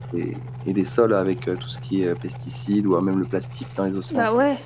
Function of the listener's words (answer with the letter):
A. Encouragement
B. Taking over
B